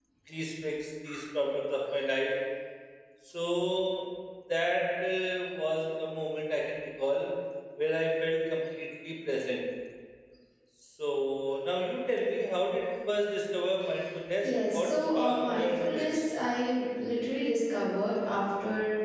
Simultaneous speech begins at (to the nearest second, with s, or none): 14 s